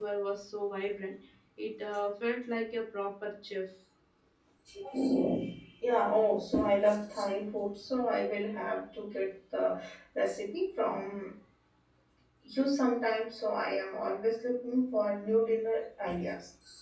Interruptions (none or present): none